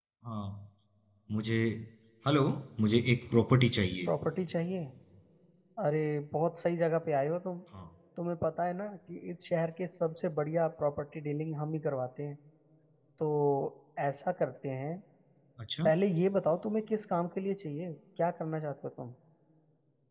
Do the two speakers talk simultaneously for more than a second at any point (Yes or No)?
No